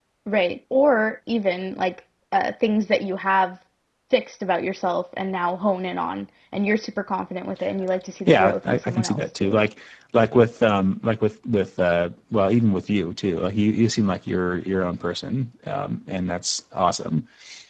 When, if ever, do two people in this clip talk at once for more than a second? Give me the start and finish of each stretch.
8.3-9.6

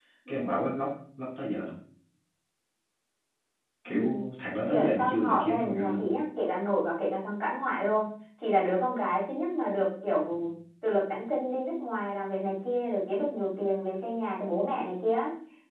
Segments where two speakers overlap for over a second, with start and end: 4.7-6.0

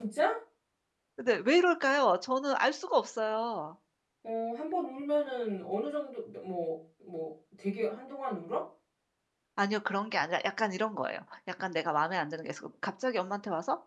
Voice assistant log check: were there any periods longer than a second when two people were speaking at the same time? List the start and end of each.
none

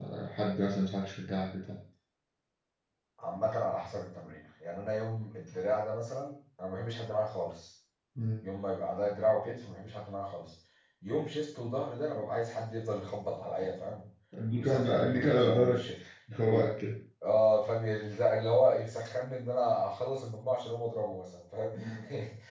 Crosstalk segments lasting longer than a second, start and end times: 14.5-15.8

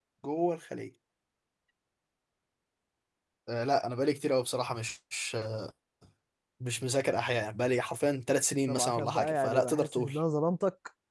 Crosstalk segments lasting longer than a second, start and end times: 8.7-10.1

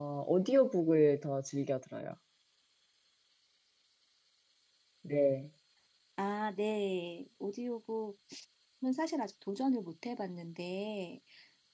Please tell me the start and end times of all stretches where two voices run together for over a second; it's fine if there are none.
none

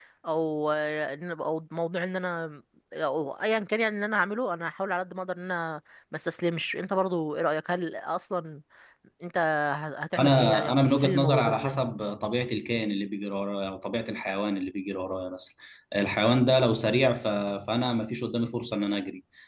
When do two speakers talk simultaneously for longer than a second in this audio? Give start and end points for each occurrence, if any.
10.2-11.8

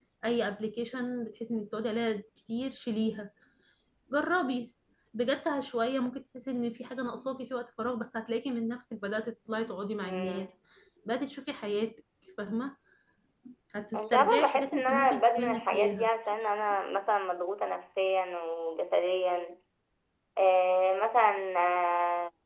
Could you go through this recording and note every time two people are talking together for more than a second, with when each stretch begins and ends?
14.0-16.1

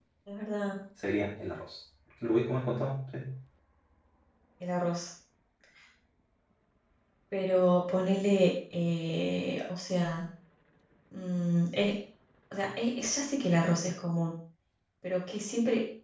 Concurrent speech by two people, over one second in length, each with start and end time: none

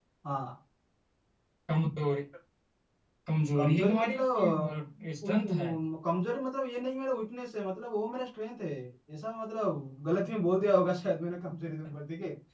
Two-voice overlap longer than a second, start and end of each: 3.6-4.8

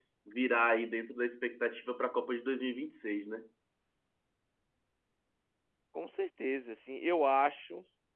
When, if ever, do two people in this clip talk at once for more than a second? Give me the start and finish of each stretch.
none

